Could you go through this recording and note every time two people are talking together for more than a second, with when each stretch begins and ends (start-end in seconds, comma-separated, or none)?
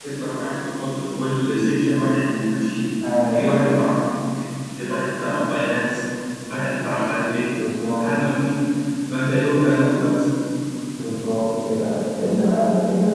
none